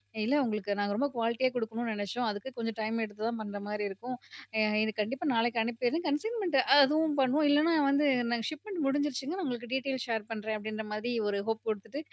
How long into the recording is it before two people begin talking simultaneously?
none

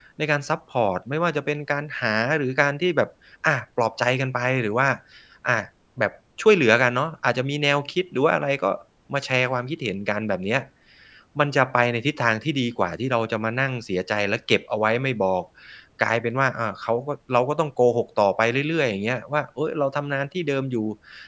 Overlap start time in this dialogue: none

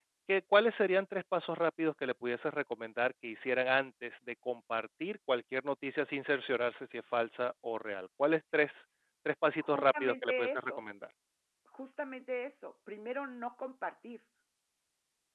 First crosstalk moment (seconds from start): 9.6 s

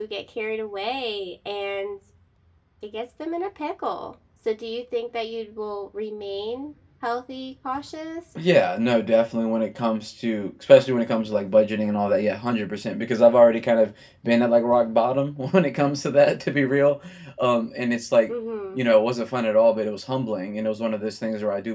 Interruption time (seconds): none

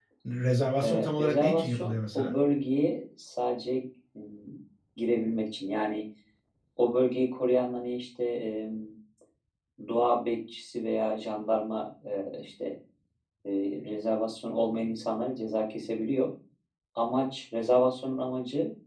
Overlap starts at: 0.8 s

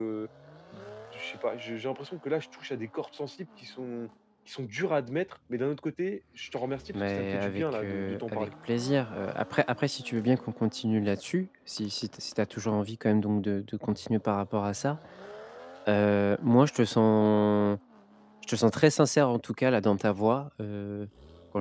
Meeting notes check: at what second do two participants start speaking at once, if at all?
6.9 s

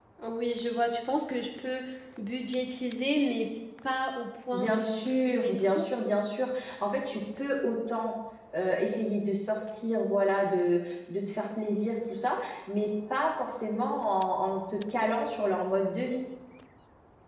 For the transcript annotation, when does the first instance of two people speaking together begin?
4.5 s

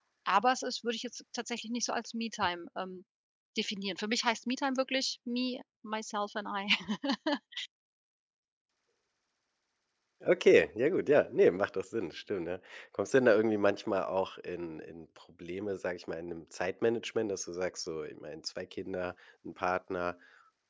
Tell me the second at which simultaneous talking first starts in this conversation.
none

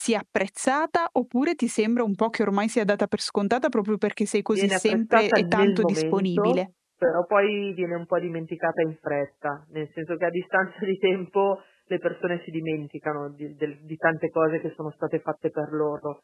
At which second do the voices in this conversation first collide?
4.5 s

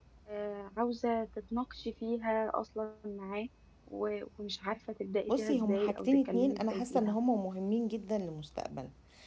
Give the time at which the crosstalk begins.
5.3 s

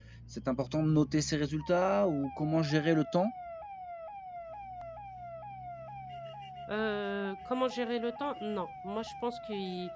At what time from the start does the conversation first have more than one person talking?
none

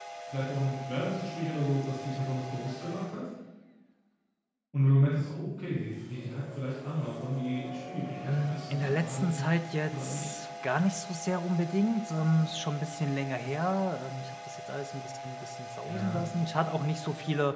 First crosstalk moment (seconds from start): 8.2 s

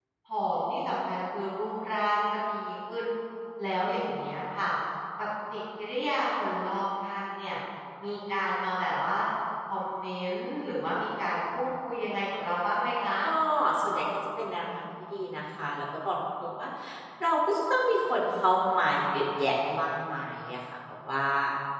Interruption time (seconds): none

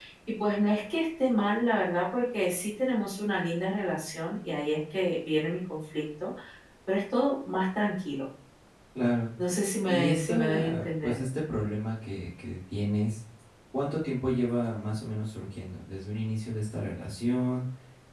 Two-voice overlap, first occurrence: 9.8 s

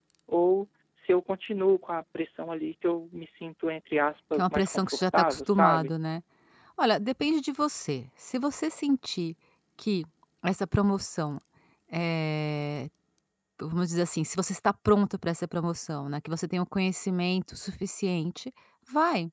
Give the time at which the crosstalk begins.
4.3 s

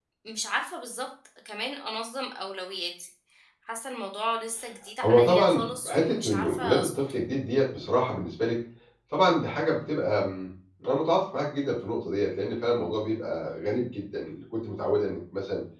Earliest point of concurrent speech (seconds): 5.0 s

